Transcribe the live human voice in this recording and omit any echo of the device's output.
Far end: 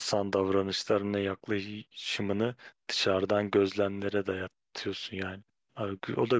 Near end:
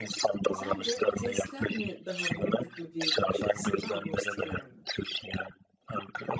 Sence ateistler mi daha mantıklı bir bakış açısında, agnostikler mi?

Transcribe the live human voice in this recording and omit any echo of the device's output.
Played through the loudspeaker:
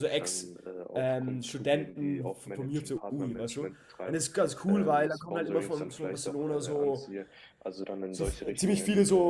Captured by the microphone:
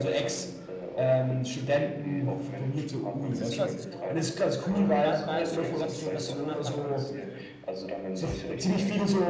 Das ist quasi so, und äh, wa- weißt du, wa- was, was du danach machen willst mit dem?

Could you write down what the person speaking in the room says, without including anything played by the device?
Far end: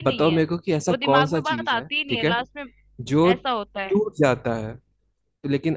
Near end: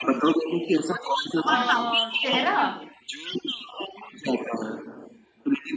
आ, चेहरा

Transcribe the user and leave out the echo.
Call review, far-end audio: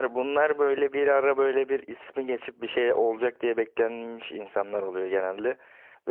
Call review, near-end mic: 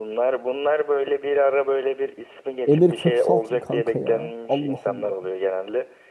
Emir Köksal kim kanka ya? Allah Allah.

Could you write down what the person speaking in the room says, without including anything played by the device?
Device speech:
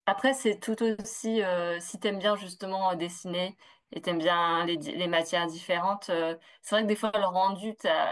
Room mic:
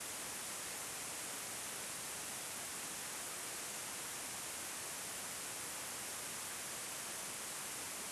none

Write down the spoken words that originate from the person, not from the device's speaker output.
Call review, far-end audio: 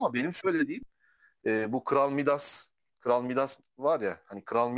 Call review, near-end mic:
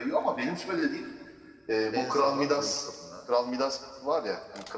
en sağlam Zeus tapınağı.

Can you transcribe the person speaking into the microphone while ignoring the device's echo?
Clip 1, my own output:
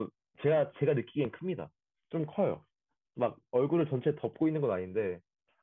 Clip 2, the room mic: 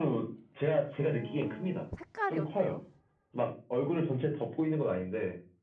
어, 색깔이 어때요?

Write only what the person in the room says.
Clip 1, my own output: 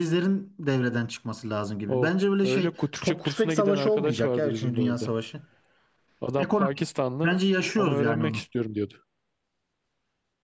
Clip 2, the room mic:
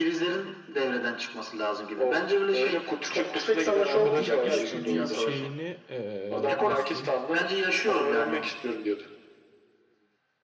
ucuz iş gücü şeyini ee, nasıl diyeyim?

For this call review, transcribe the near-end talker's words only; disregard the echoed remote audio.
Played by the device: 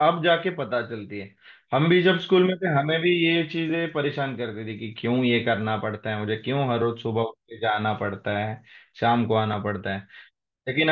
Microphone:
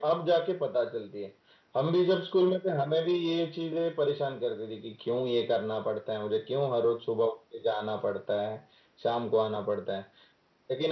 none

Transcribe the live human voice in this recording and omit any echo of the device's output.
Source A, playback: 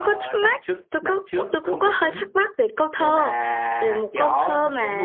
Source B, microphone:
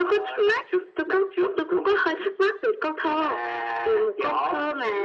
none

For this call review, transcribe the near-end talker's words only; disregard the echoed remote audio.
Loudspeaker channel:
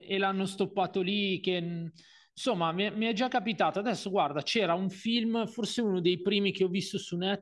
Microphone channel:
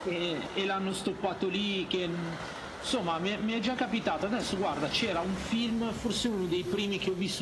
none

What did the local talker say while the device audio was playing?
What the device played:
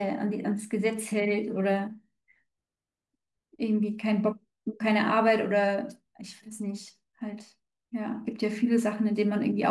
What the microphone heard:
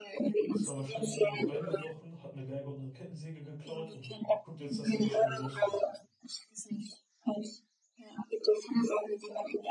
Ist dann wahrscheinlich irgendwo eingebrochen, hat eine Geige und eine Kettensäge geklaut und guckt jetzt, dass er die schnell los wird.

